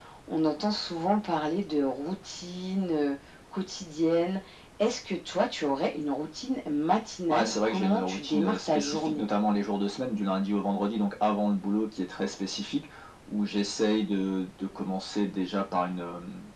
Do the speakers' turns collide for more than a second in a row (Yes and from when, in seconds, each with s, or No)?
Yes, from 7.3 s